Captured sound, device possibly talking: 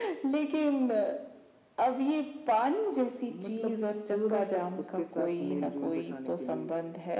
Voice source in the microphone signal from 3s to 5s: echo only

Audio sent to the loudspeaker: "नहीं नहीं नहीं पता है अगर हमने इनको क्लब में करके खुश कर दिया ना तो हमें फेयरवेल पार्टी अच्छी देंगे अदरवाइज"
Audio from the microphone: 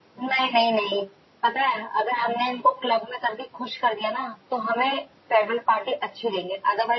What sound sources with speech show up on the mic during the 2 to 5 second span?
echo only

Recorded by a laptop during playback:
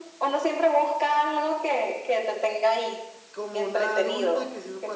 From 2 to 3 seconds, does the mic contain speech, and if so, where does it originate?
echo only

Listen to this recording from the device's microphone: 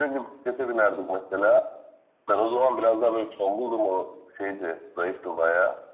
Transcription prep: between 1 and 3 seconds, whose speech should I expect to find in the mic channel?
echo only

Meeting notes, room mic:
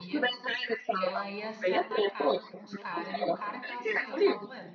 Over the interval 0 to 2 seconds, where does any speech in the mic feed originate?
both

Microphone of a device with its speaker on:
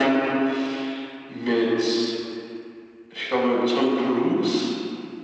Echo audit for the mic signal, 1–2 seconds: echo only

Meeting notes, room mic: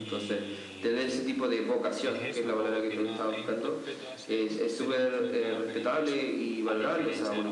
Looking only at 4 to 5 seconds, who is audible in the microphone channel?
both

